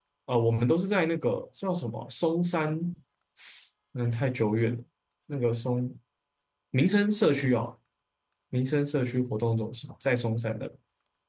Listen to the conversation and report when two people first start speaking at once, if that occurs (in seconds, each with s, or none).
none